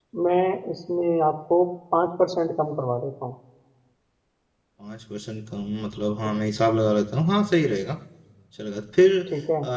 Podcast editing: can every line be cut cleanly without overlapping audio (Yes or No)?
Yes